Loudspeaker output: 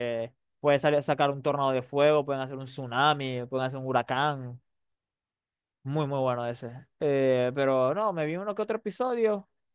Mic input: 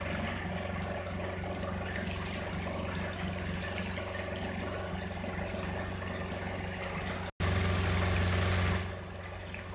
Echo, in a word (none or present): none